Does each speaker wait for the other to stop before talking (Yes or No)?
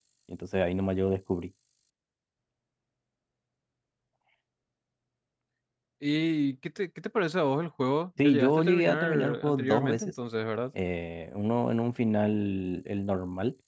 No